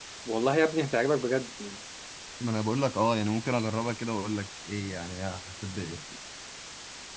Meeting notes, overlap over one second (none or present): none